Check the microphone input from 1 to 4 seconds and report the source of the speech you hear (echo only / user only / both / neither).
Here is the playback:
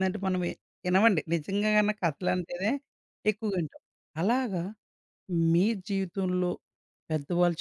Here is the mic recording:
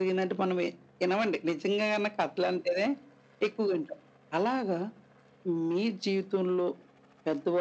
echo only